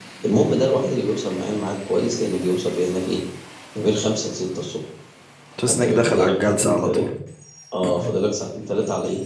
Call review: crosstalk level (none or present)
present